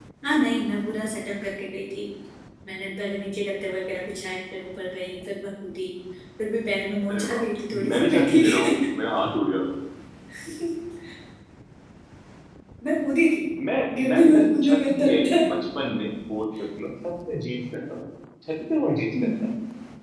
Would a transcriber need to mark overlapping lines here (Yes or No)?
Yes